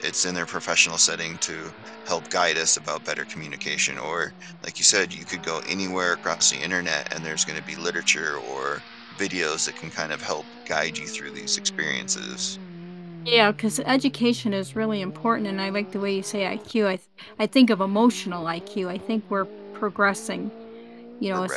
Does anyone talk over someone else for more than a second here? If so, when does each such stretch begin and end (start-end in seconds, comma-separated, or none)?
none